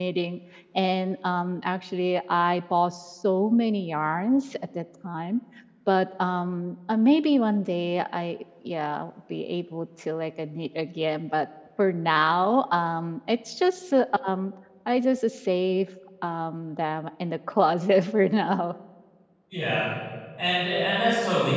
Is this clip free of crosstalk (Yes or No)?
Yes